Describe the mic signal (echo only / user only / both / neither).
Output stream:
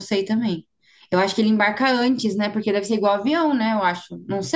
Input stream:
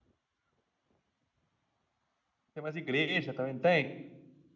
user only